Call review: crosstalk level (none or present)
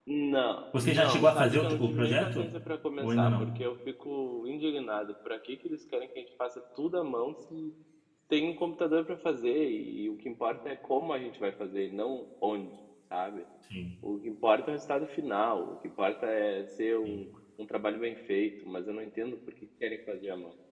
present